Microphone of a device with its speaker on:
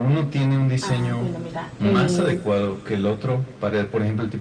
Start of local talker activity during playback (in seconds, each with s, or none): 0.8 s